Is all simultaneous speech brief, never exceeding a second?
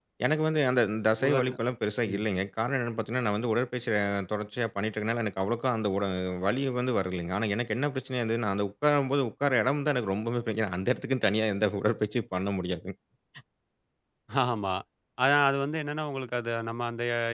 Yes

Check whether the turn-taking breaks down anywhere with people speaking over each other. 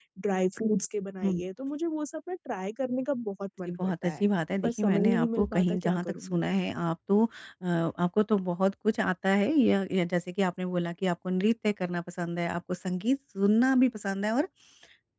Yes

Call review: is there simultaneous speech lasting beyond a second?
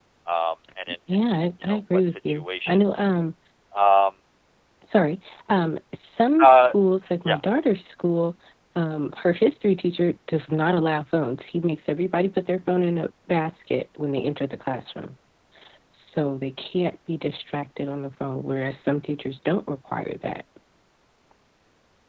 Yes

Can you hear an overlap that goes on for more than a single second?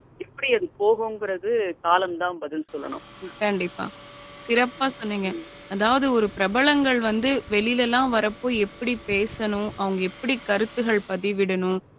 No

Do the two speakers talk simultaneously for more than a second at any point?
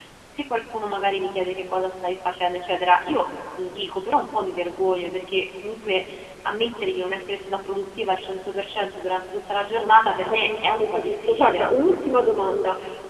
Yes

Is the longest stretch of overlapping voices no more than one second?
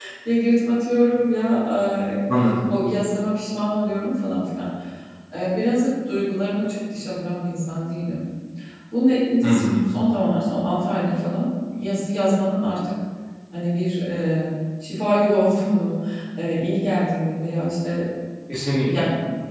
Yes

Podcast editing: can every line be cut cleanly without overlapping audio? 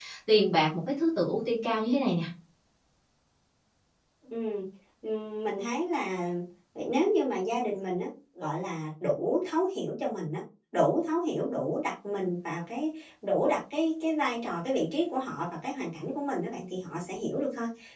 Yes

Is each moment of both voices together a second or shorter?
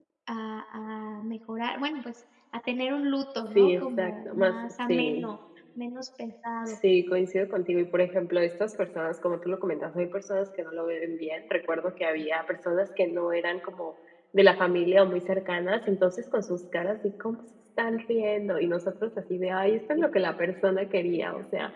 No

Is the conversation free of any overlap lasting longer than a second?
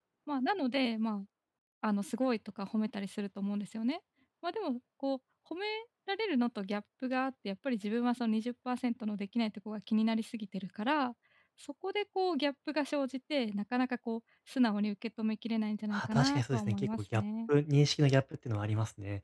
No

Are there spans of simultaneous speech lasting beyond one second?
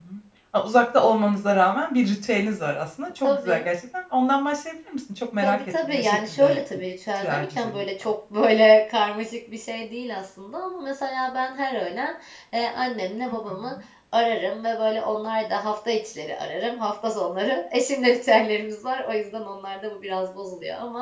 Yes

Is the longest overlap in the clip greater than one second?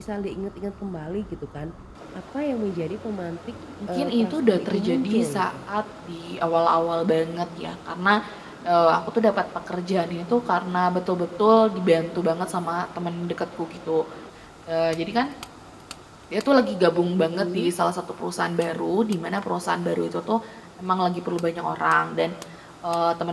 Yes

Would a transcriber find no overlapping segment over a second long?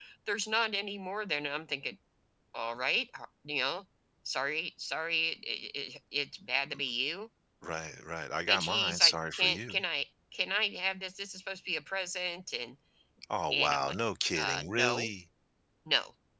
No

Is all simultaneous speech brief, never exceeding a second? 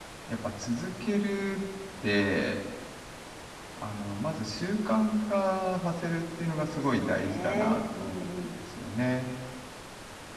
No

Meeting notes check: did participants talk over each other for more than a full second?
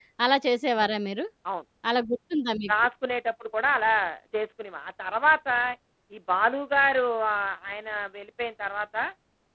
No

